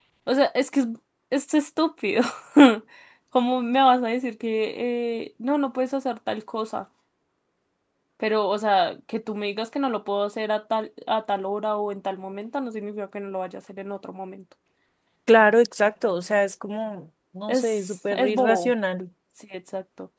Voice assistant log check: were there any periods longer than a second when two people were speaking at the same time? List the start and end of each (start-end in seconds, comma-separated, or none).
17.5-18.7